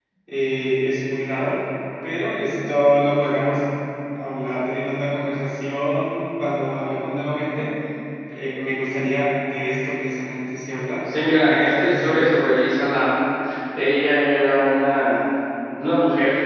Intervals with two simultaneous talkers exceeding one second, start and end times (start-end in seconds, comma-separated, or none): 11.2-12.6